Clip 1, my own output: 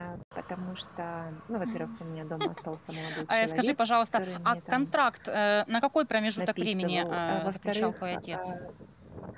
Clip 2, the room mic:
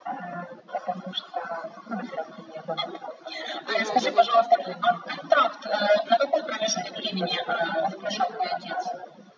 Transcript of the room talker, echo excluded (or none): Мгм, мгм.